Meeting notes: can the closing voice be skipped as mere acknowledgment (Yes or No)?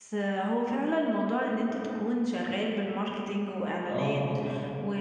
Yes